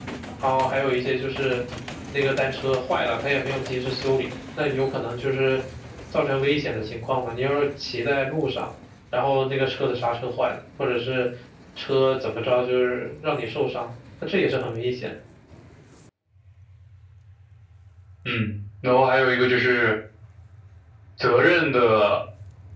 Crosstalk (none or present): none